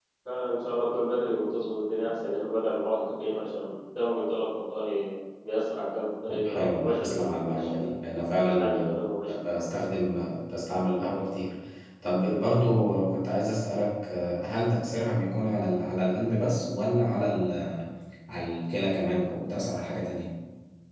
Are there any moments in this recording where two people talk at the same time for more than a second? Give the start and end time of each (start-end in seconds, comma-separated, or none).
6.3-7.7